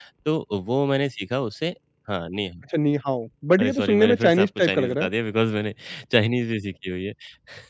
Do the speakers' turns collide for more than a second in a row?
Yes, from 3.6 s

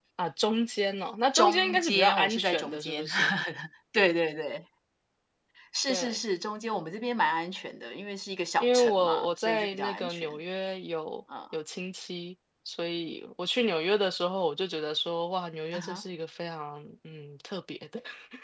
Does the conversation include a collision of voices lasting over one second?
Yes, from 1.3 s

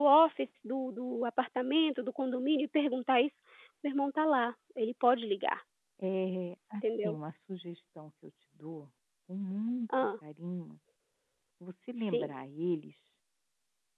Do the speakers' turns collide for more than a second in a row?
No

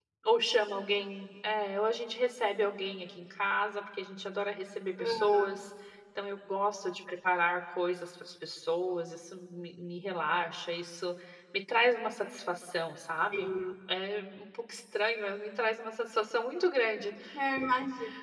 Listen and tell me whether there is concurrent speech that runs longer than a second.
No

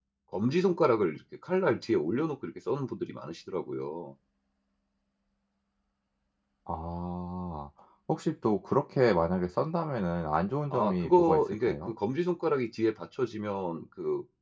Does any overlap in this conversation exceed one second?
Yes, from 10.7 s

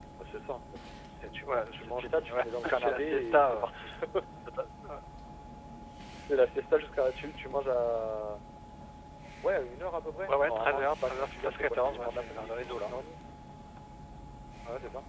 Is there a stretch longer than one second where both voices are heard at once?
Yes, from 1.5 s

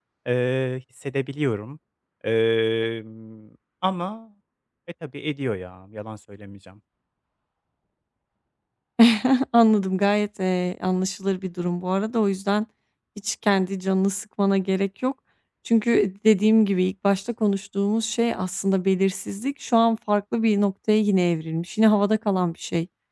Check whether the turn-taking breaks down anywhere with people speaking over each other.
No

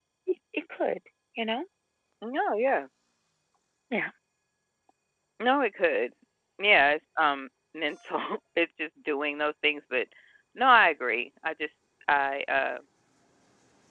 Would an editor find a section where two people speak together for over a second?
No

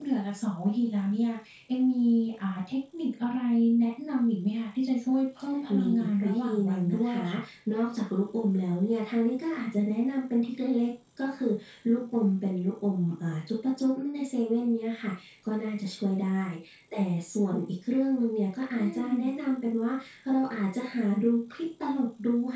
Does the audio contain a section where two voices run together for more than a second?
Yes, from 5.8 s

